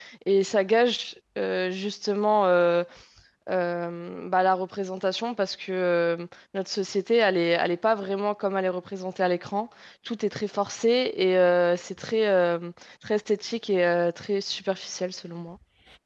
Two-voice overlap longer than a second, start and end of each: none

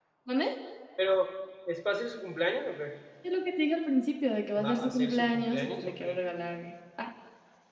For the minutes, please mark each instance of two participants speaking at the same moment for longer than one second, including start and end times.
4.6-6.2

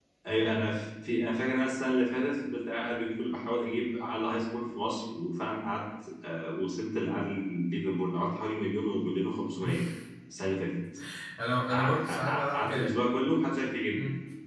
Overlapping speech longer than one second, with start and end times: 11.7-12.9

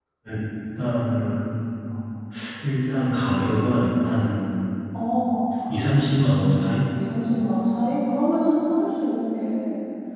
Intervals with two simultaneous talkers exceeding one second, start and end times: none

